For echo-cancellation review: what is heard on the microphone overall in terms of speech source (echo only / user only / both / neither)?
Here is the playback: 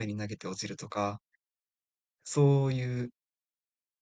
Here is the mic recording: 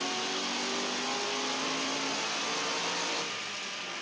neither